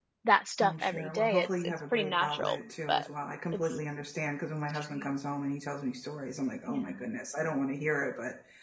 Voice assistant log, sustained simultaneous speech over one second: present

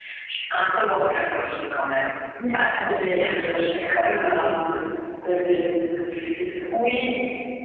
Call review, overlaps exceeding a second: present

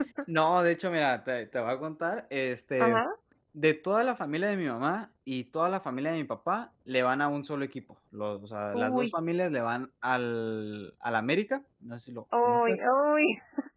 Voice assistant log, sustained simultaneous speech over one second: none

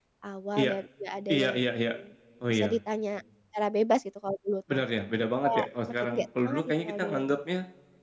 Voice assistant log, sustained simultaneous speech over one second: present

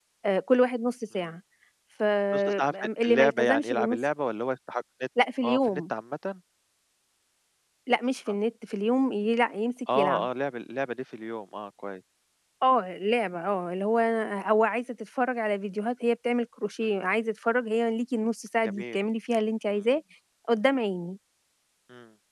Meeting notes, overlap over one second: present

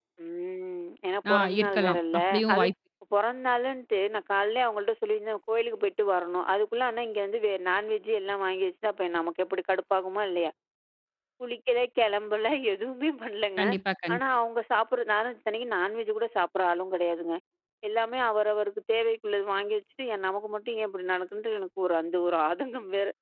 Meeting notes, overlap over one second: present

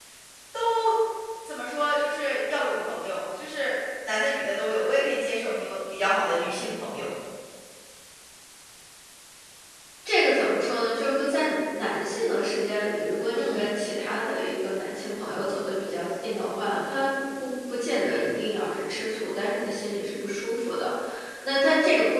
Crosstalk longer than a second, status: none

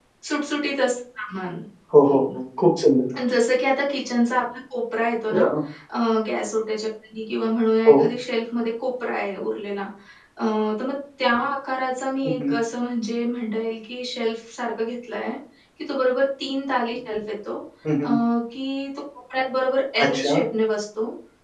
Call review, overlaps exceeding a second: none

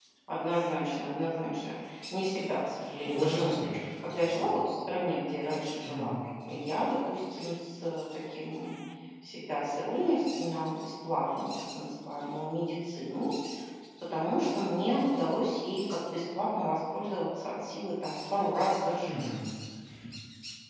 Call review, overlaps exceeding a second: none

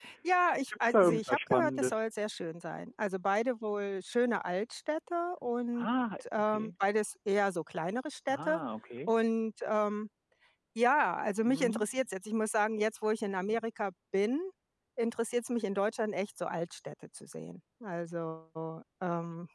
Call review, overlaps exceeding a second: present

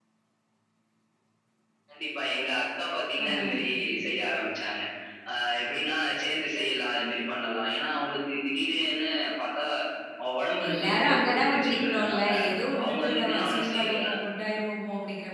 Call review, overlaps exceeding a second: present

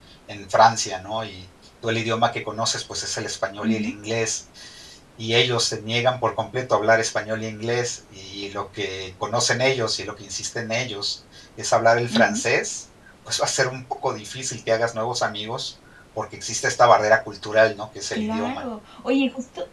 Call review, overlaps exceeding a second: none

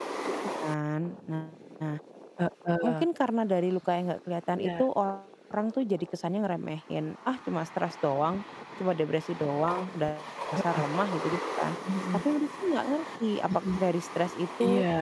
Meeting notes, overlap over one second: none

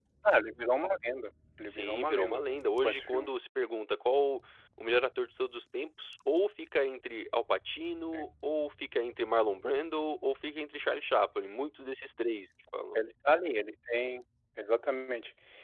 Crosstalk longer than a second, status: present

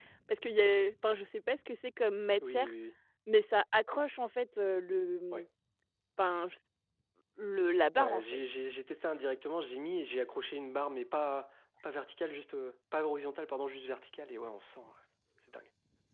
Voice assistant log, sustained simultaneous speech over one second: none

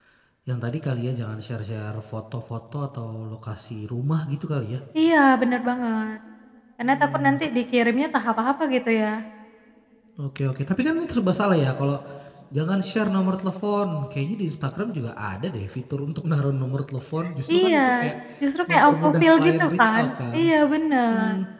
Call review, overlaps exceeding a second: present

